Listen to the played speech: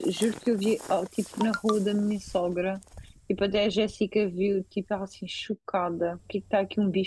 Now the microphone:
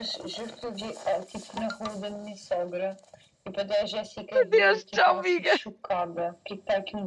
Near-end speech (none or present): present